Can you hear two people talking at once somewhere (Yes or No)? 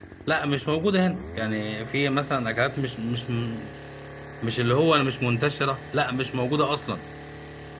No